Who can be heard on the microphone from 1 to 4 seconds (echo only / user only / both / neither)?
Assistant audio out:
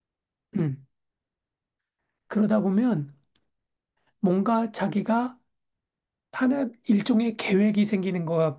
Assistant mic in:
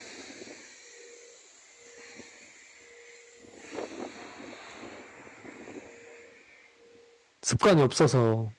neither